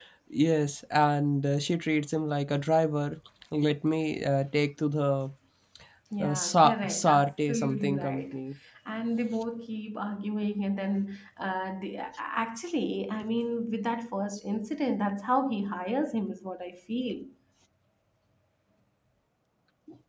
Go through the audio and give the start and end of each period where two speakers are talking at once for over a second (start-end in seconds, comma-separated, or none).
6.2-8.3